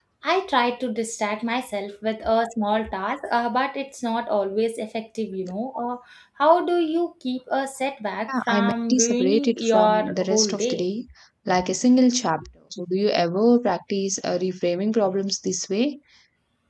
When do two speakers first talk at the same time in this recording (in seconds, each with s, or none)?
8.3 s